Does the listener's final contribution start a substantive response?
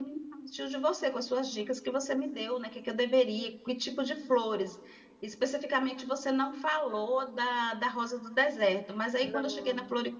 No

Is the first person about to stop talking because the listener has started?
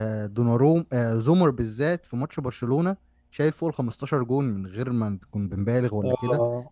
No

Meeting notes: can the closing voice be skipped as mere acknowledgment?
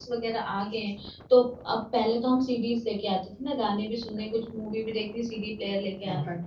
No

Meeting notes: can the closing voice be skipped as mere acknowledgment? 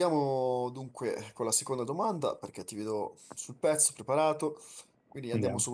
Yes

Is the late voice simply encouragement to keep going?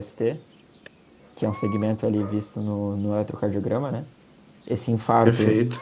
Yes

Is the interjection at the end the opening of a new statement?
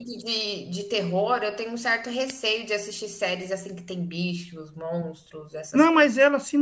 Yes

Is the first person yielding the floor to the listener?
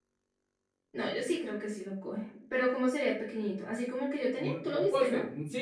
Yes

